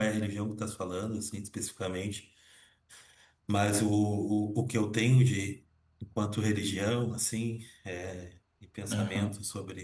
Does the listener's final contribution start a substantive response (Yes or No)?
No